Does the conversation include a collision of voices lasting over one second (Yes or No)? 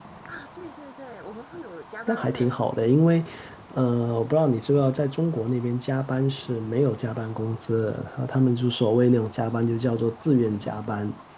No